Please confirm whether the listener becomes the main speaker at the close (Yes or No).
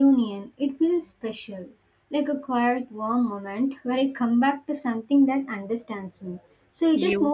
No